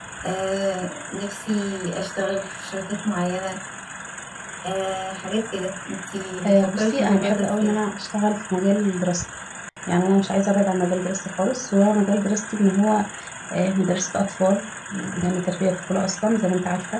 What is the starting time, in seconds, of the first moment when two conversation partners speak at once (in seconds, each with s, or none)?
6.4 s